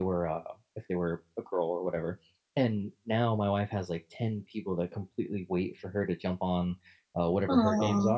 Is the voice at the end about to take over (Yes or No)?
No